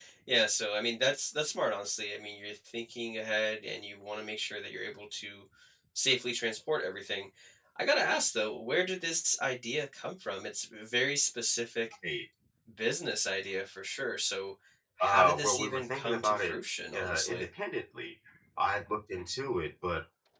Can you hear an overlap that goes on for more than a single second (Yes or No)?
Yes